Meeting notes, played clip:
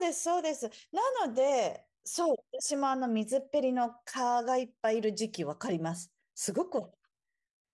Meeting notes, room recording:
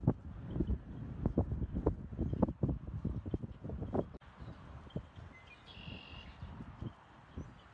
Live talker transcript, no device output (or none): none